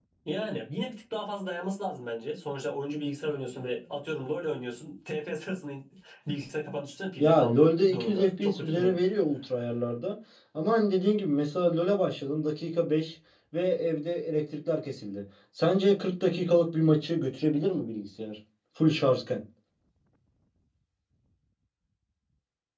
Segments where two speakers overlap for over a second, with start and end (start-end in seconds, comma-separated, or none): 7.2-9.0